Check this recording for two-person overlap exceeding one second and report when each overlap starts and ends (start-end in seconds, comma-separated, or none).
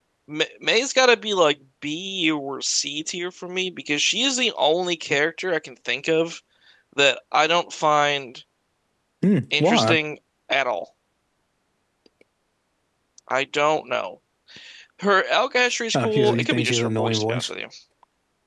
15.9-17.5